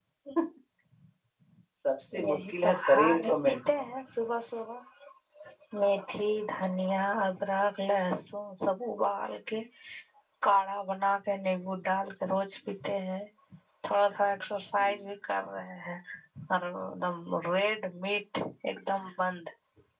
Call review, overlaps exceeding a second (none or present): present